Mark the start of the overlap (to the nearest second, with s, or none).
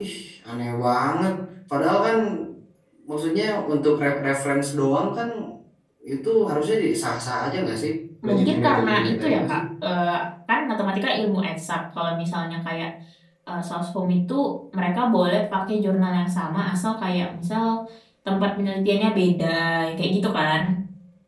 8 s